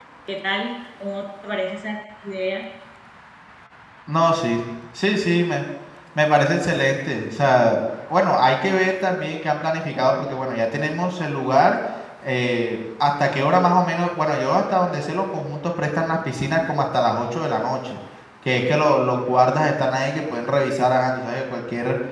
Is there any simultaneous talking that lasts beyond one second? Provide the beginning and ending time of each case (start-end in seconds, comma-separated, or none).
none